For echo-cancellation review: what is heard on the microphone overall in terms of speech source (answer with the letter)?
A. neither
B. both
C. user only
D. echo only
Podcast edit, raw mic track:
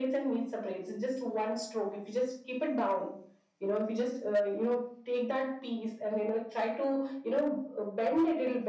D